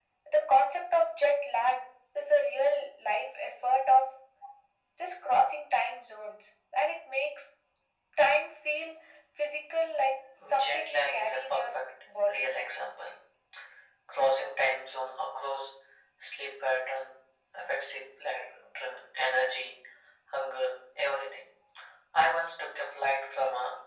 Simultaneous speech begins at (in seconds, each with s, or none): 10.4 s